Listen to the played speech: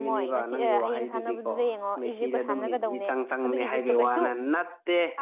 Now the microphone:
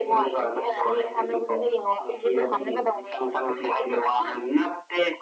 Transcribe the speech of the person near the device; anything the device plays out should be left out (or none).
none